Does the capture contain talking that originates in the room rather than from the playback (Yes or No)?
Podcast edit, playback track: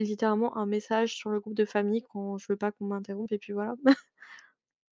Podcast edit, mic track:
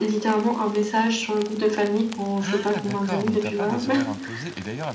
Yes